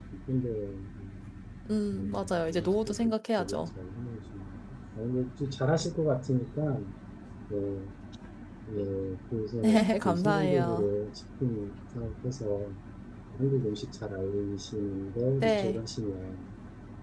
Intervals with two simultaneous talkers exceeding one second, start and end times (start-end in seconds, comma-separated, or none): 1.9-3.7, 9.6-10.8